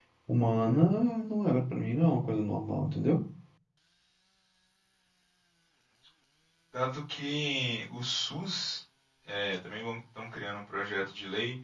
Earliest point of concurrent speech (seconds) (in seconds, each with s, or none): none